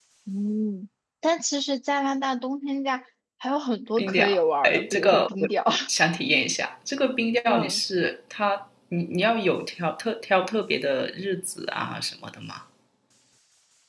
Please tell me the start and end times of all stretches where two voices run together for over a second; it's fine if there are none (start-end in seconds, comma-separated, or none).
4.0-5.5